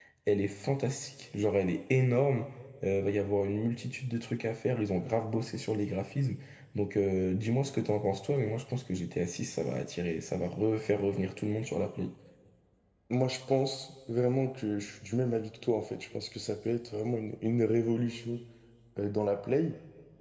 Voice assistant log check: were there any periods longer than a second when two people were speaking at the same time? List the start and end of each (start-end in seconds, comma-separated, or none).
none